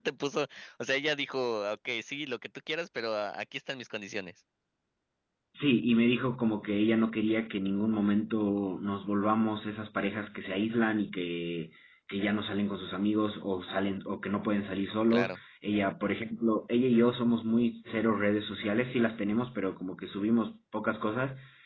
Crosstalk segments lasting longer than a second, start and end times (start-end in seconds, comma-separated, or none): none